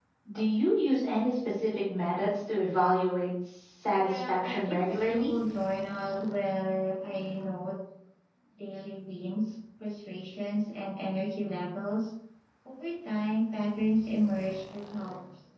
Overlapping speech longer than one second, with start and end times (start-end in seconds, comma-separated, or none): 3.9-5.3